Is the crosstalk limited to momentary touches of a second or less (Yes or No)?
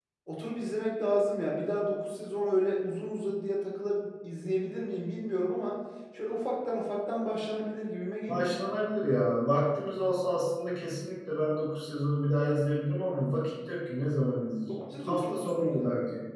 No